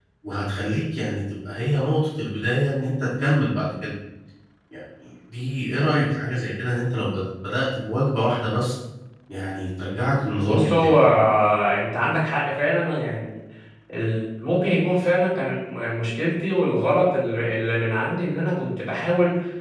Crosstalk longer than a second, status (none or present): none